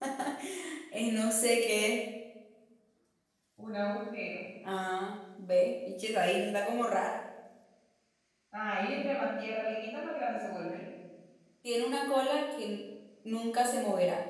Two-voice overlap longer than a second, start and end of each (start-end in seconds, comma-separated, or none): none